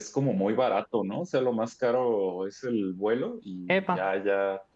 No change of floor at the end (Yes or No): Yes